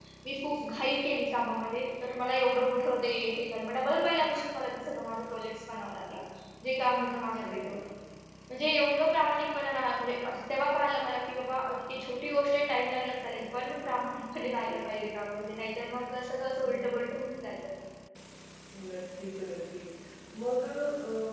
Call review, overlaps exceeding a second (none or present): none